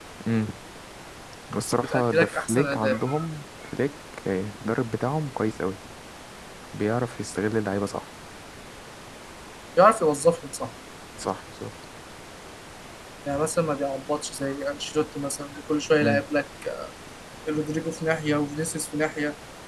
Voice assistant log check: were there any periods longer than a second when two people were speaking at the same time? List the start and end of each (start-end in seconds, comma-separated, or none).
1.8-3.0